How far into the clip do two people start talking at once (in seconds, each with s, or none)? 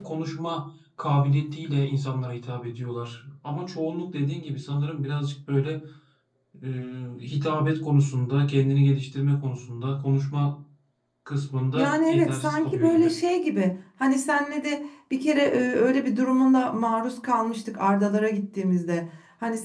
11.8 s